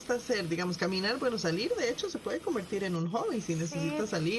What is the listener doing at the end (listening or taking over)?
taking over